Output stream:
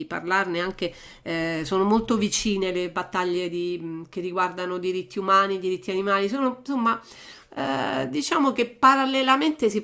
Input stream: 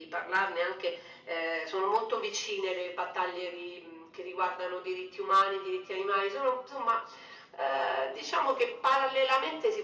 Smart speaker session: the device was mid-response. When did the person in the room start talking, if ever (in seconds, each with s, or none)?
none